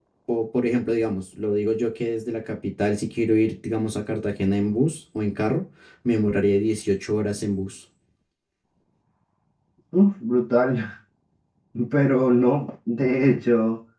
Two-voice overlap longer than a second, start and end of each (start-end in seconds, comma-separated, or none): none